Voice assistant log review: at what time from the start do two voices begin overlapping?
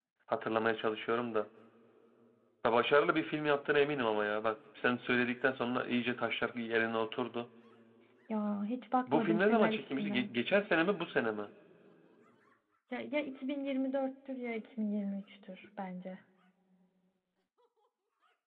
9 s

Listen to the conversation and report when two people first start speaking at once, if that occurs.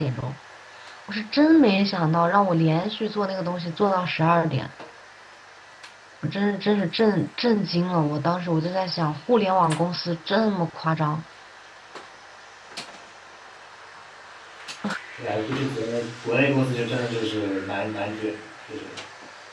none

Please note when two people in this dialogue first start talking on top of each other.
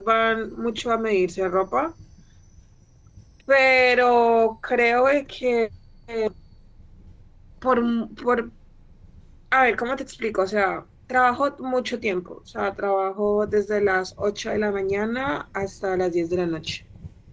none

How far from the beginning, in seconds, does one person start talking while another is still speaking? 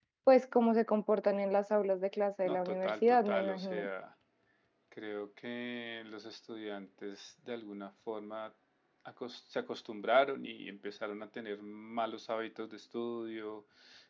2 s

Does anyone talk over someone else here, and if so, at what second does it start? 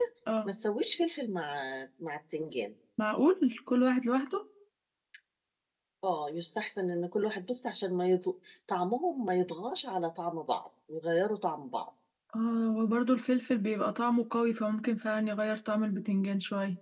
none

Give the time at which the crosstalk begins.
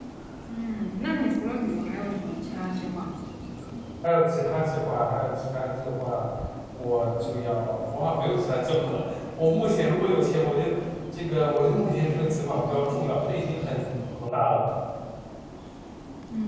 none

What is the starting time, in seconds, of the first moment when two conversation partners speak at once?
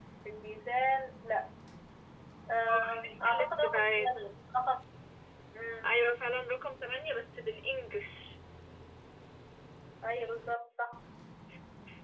3 s

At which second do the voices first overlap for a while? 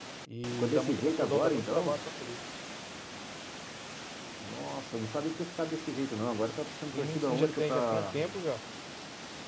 1 s

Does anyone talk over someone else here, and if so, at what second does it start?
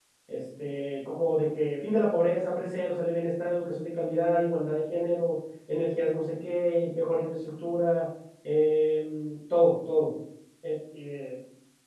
none

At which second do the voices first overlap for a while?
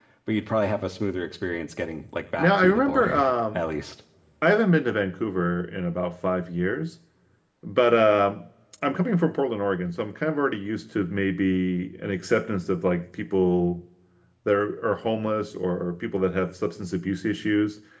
2 s

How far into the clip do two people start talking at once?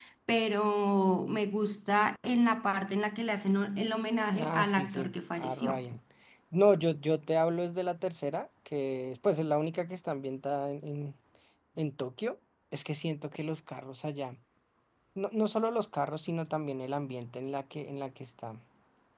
4 s

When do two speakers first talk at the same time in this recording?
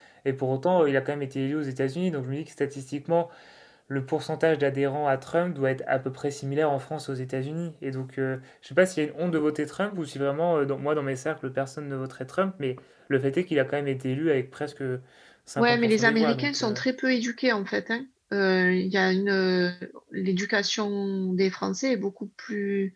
16 s

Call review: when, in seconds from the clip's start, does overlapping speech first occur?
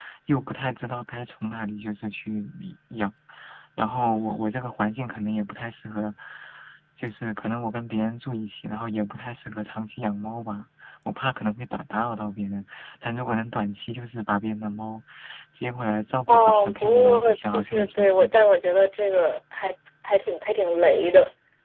16 s

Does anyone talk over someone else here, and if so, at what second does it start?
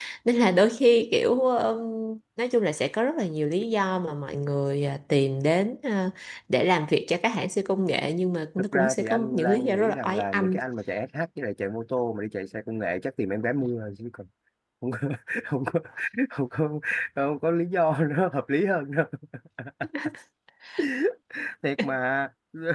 9 s

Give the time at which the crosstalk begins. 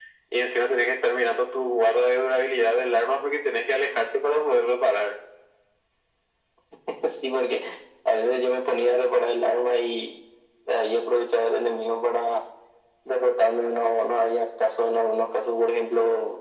none

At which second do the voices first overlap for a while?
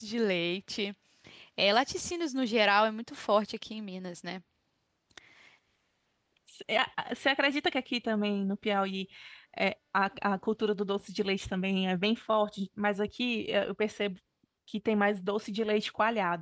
none

